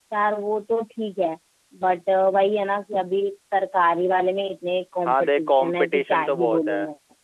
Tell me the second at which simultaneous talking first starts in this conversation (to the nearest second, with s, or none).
5 s